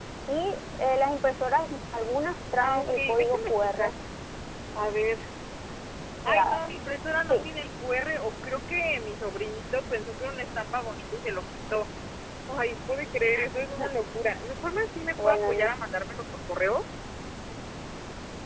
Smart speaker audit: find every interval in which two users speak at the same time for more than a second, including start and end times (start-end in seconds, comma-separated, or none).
2.6-3.9